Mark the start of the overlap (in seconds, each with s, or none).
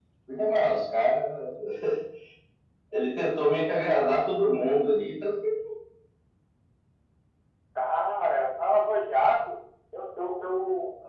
none